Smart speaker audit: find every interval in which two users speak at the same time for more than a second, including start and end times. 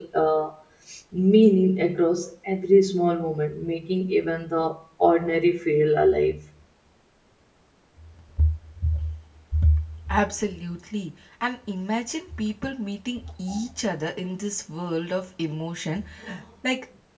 none

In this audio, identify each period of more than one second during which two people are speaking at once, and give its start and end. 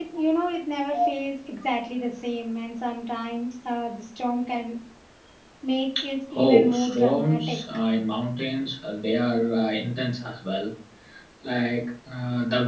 6.4-7.6

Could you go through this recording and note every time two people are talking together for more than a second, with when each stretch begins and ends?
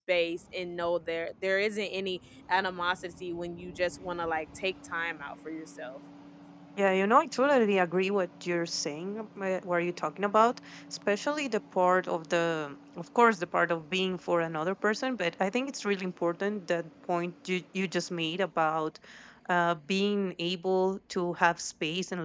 none

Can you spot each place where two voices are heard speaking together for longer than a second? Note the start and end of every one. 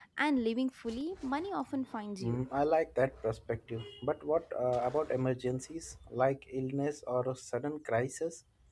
none

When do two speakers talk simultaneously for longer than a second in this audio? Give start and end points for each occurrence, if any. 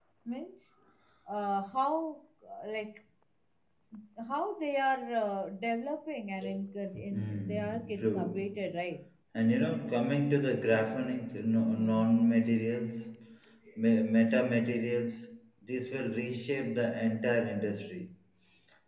7.1-8.7

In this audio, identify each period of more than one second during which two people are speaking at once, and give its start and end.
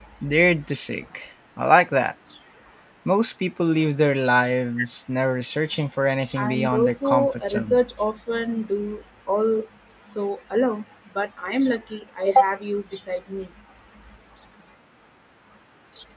6.4-7.8

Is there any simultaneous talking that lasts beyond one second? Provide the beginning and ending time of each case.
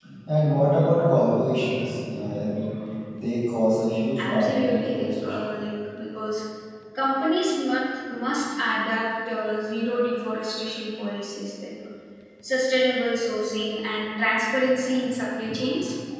4.2-5.5

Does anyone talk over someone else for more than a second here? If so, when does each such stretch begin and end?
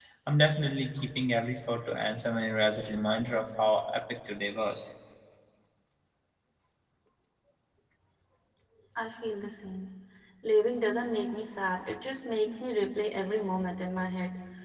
none

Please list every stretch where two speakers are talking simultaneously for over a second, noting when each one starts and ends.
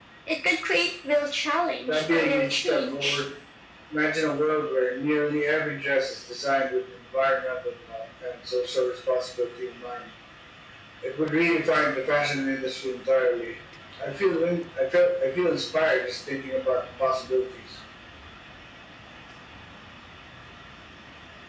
1.9-3.2

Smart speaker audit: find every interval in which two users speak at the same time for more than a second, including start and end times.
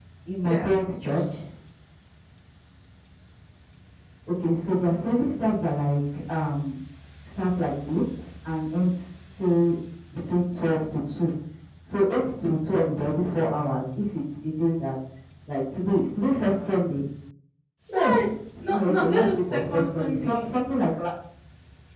18.7-20.5

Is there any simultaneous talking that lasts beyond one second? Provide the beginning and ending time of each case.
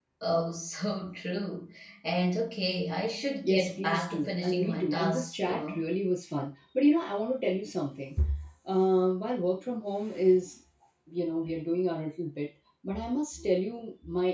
3.4-5.8

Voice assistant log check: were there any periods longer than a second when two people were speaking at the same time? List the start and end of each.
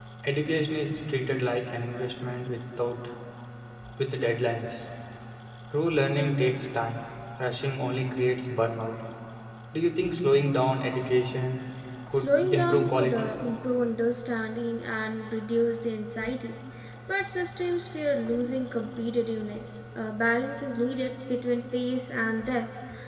12.1-13.3

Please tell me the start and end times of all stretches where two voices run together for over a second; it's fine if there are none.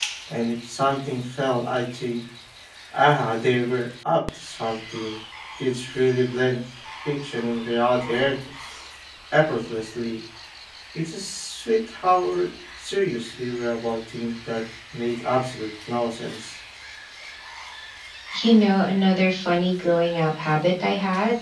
none

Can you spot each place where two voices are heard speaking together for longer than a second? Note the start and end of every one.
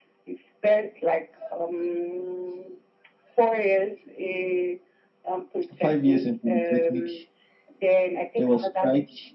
5.8-7.1

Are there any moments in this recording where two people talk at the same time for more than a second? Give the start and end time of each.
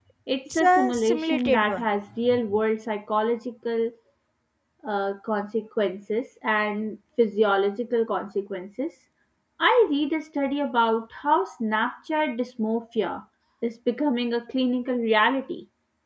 0.6-1.9

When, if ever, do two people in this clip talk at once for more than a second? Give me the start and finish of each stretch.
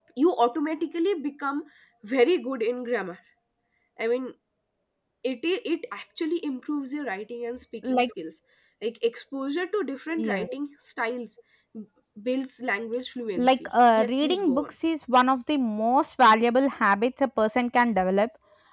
13.4-14.7

